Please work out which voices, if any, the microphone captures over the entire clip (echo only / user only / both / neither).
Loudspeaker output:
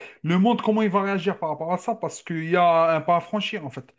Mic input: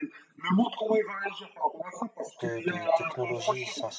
both